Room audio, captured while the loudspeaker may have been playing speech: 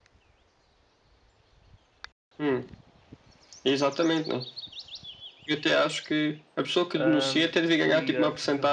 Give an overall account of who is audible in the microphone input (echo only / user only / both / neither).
both